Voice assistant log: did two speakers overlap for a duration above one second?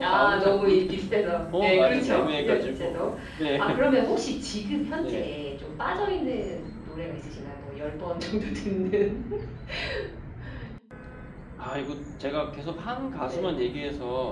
Yes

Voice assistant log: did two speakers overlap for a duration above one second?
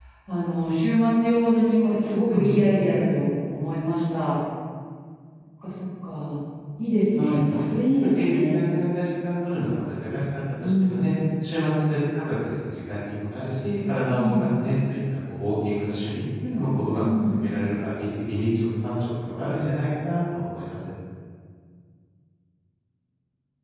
Yes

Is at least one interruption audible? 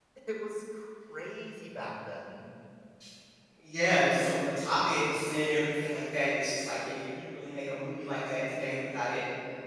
No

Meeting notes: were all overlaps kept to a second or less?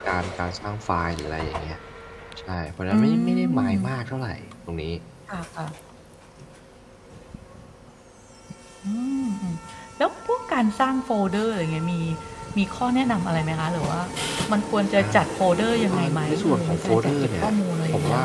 No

